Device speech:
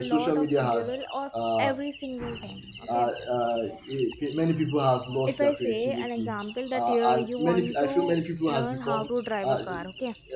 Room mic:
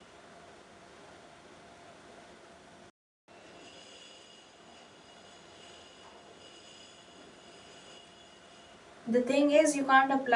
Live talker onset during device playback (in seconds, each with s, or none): 9.1 s